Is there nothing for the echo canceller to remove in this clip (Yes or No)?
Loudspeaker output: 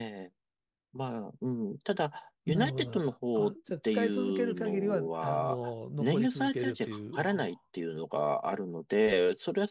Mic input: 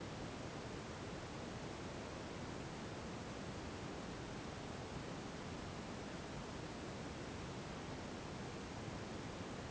Yes